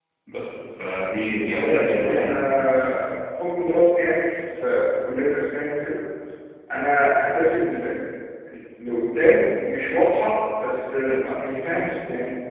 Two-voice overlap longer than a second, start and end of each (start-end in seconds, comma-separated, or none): 1.5-2.8